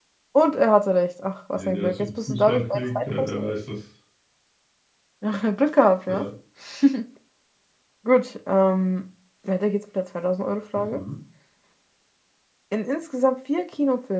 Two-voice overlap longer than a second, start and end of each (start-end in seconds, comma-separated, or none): 1.6-3.5